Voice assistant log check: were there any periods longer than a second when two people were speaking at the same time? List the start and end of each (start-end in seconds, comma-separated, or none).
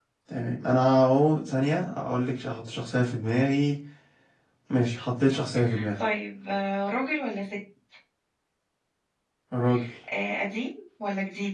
none